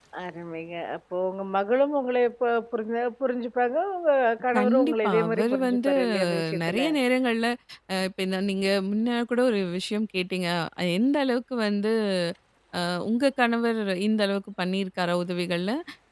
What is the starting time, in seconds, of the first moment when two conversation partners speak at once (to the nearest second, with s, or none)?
5 s